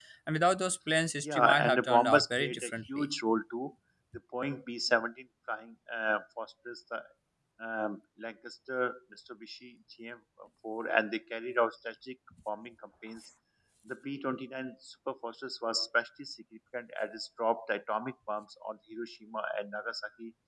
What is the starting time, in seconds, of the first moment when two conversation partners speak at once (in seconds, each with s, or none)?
1.2 s